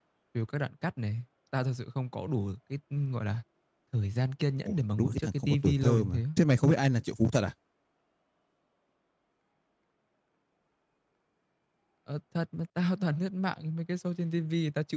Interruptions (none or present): present